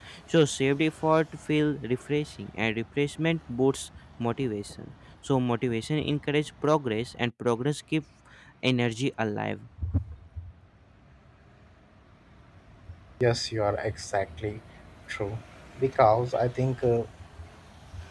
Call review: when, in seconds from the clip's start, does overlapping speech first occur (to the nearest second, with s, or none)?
none